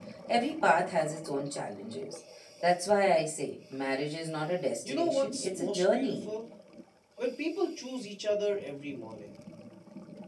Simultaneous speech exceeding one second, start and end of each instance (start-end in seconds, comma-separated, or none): 4.8-6.3